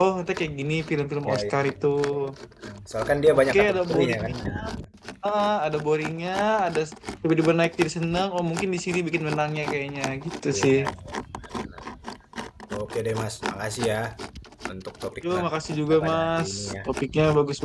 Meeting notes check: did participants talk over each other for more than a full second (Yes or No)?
Yes